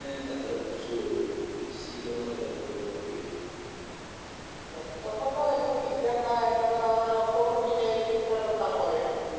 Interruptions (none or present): none